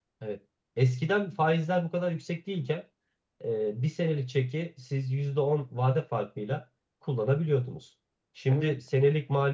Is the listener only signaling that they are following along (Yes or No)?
Yes